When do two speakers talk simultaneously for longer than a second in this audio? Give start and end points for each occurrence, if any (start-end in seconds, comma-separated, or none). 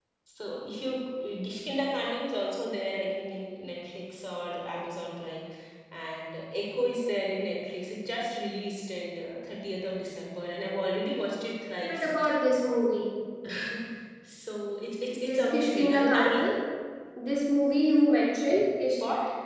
15.2-16.5